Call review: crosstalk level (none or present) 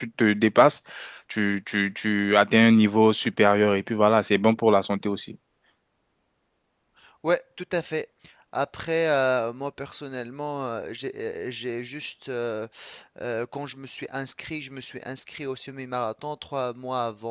none